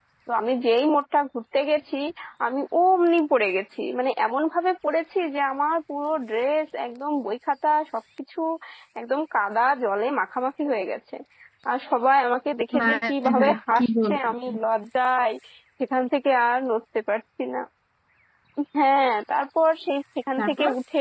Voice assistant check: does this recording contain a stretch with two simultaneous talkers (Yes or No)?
Yes